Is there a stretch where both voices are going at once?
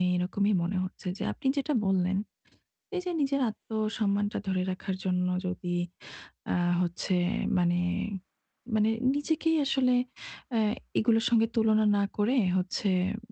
No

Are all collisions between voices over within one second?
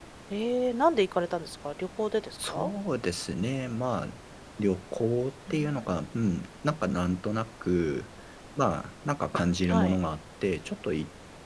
Yes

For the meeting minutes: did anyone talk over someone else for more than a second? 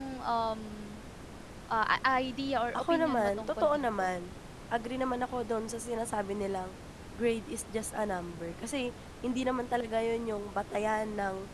Yes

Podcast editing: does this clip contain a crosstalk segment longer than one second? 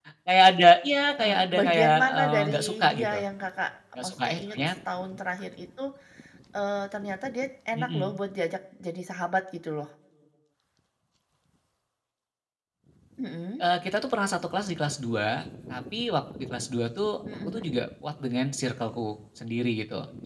Yes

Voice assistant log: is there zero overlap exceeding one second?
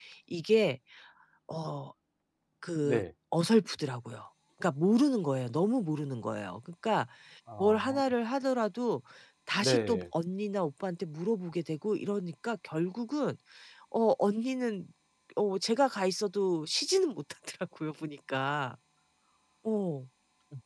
Yes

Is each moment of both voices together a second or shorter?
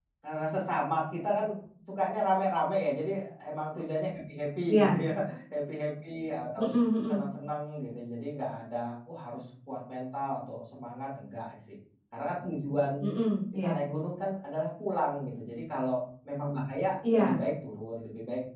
Yes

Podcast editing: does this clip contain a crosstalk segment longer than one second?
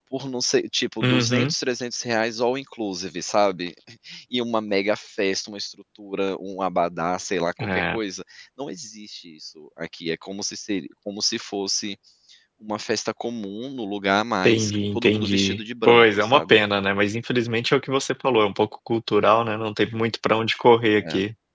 Yes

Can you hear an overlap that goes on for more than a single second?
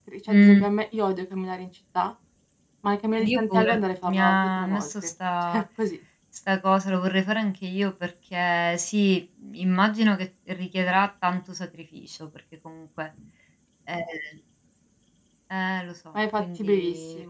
Yes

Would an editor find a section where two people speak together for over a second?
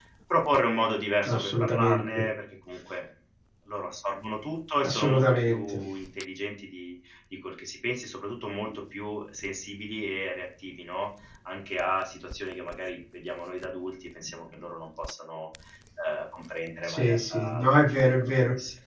Yes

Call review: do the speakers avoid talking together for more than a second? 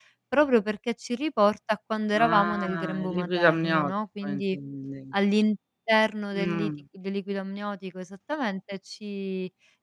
No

